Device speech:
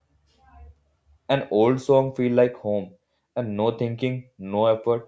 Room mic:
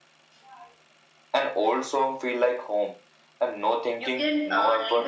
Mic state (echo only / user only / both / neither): both